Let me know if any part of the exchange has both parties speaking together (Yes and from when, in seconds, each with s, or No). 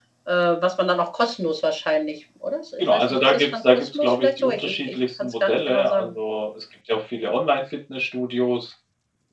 Yes, from 2.8 s